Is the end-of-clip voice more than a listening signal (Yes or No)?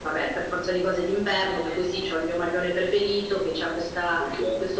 No